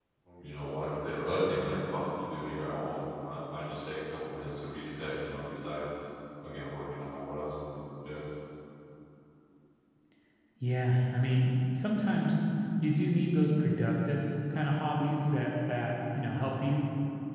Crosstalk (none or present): none